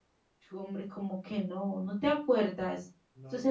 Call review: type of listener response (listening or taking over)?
listening